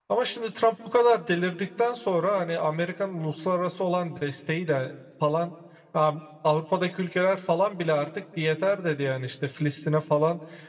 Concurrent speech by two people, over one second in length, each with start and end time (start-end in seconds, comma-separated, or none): none